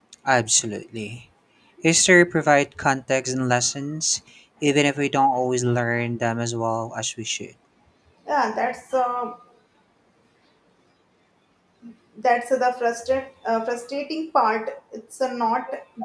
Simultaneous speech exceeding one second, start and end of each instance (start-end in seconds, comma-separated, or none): none